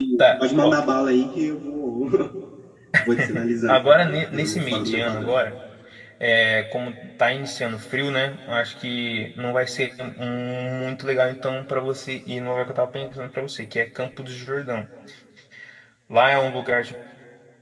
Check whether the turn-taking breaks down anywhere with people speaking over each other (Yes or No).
Yes